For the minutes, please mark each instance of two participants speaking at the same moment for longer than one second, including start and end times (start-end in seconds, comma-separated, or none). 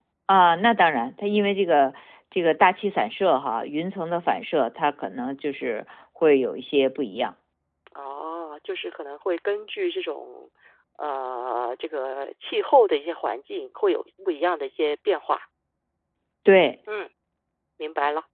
none